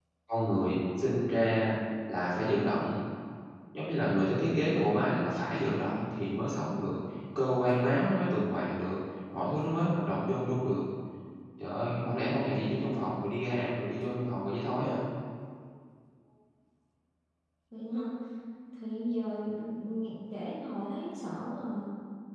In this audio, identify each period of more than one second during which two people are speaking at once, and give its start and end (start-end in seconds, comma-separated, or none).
none